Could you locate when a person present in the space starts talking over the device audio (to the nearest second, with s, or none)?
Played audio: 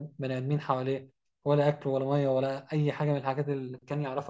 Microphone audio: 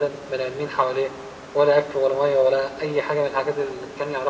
none